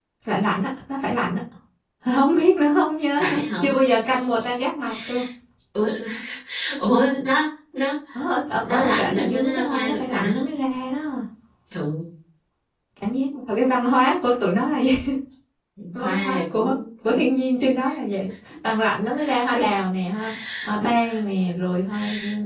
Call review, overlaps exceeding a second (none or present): present